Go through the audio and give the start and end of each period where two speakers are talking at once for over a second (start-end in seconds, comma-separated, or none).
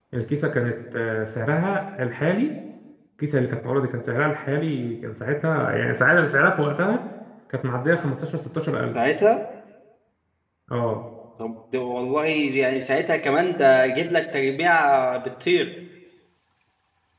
none